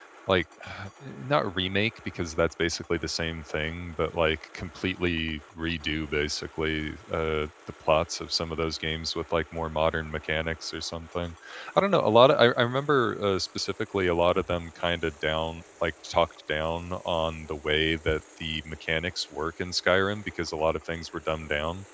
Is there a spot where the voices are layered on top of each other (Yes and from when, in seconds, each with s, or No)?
No